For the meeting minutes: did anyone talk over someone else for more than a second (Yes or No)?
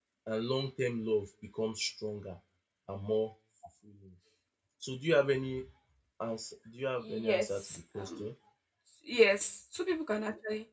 Yes